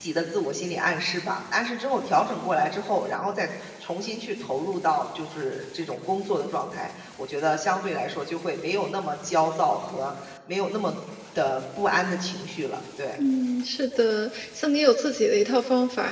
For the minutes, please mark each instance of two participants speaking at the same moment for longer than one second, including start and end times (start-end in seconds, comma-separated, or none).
none